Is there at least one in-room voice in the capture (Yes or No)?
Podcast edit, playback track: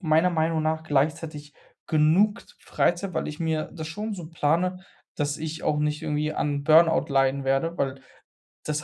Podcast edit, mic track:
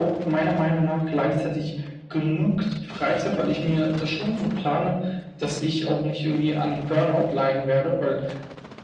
No